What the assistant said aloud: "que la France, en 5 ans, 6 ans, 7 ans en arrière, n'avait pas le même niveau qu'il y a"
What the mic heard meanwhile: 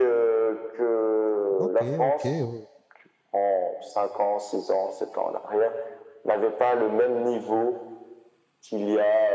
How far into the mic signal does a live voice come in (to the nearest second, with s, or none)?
2 s